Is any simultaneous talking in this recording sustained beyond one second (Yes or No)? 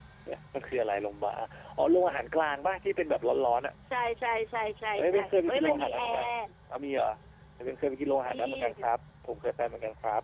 Yes